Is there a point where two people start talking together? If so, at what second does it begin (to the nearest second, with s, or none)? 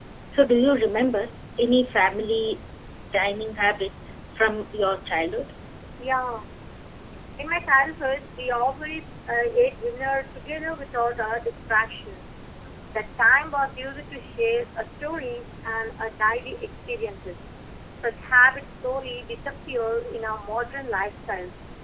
none